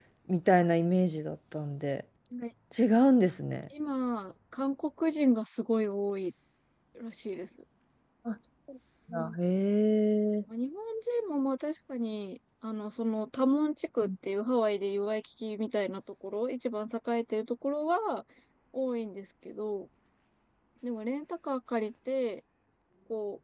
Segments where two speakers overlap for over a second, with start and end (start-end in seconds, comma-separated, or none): none